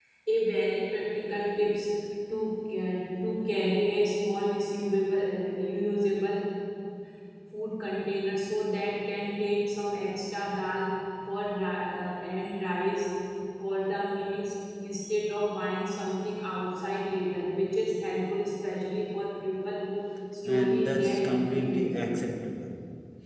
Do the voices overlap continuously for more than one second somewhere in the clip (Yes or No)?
Yes